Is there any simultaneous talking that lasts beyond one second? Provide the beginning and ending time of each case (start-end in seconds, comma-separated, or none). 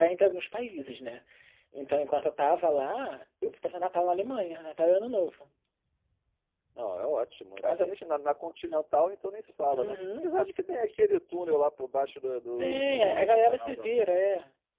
12.6-13.9